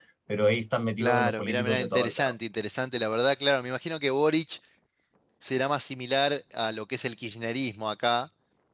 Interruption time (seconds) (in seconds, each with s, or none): 1.0 s